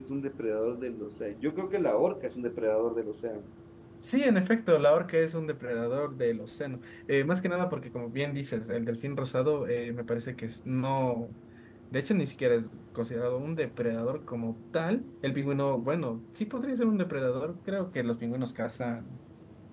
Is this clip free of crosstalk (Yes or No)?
Yes